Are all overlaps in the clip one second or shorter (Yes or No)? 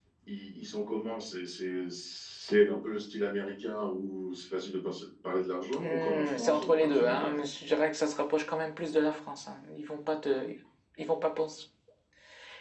No